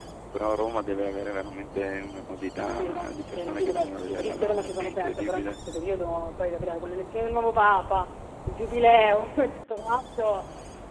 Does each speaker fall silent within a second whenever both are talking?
No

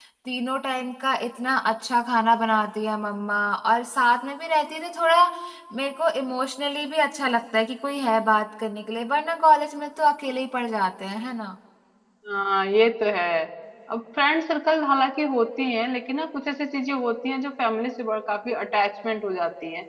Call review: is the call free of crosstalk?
Yes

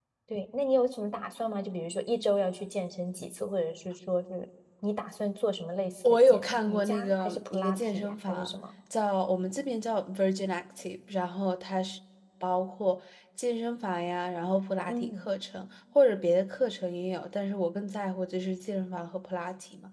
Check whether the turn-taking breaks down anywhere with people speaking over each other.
Yes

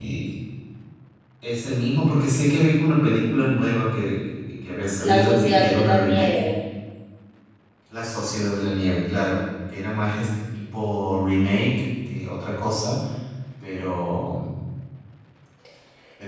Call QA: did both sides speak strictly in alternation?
No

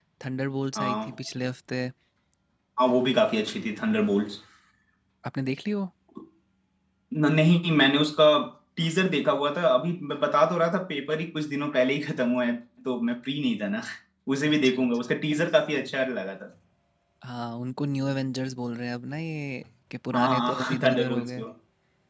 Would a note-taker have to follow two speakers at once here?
Yes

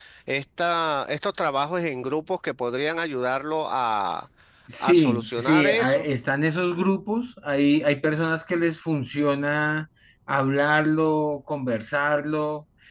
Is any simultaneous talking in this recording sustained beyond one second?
Yes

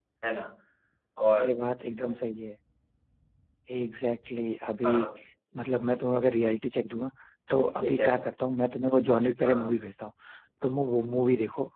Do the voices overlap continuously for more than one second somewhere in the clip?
No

